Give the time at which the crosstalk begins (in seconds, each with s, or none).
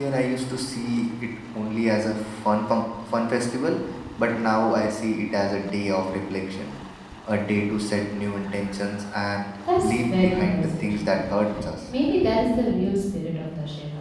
9.8 s